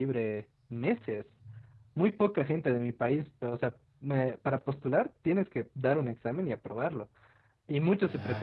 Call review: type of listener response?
listening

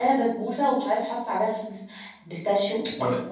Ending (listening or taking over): taking over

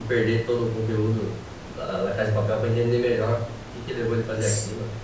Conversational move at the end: taking over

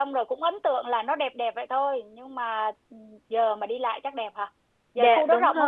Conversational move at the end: taking over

